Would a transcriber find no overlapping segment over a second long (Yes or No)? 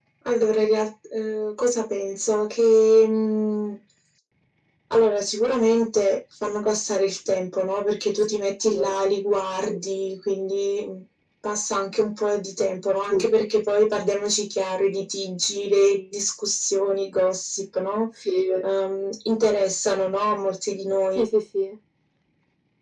Yes